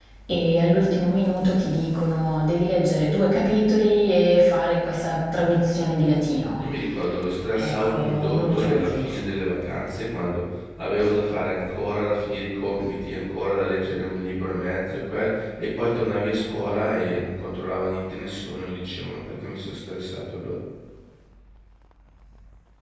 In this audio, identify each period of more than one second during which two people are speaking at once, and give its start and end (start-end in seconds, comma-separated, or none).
7.6-9.2